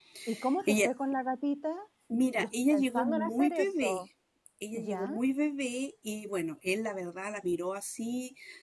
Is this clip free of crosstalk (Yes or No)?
No